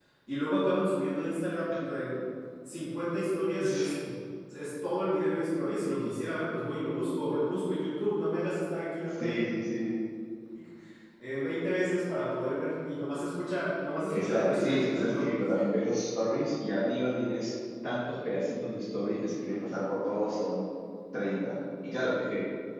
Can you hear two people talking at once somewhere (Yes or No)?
Yes